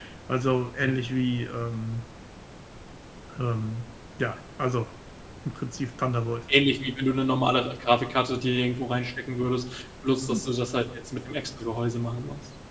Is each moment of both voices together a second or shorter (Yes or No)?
Yes